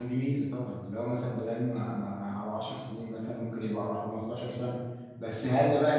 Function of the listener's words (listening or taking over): listening